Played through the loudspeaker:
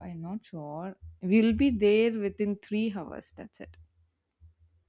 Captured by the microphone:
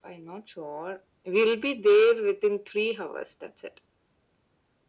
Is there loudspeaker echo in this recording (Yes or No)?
Yes